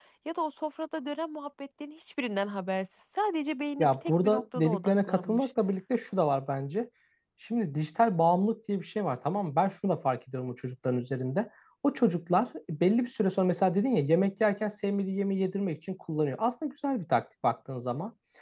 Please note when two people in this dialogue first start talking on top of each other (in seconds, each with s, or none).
3.8 s